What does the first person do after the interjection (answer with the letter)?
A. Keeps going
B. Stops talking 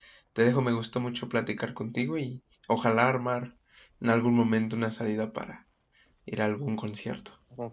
B